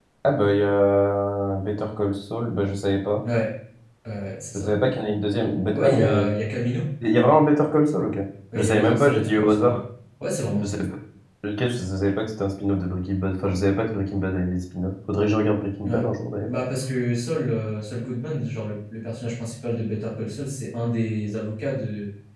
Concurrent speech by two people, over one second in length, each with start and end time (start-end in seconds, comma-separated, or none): 8.6-9.8